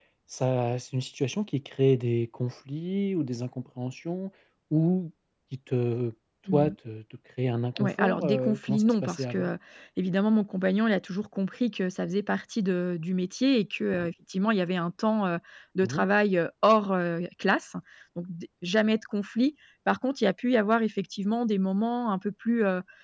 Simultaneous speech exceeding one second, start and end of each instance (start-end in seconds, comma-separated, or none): 7.8-9.5